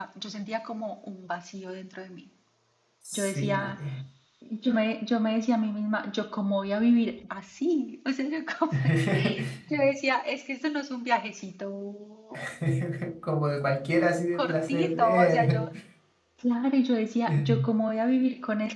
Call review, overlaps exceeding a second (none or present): present